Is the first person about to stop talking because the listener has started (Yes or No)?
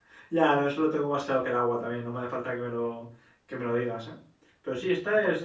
No